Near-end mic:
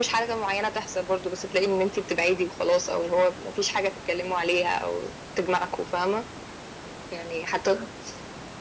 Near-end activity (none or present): none